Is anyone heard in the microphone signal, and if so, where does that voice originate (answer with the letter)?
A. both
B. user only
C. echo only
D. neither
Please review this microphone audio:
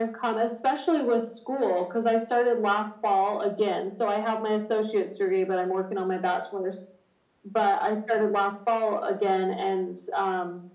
C